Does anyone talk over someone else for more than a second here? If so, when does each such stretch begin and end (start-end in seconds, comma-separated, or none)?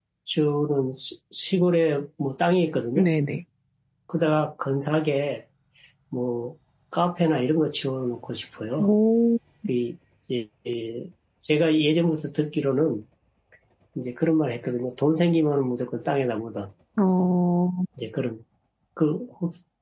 none